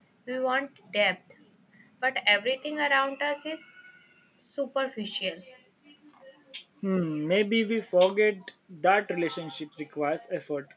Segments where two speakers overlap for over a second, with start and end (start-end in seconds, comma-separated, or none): none